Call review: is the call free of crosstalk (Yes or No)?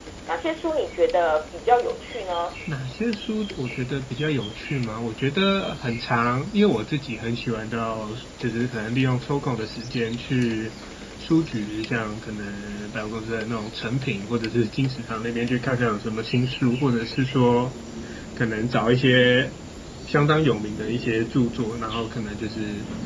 Yes